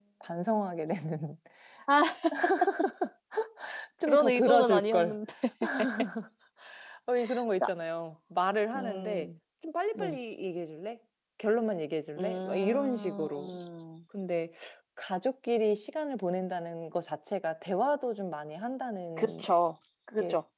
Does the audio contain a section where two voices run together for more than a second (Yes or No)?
Yes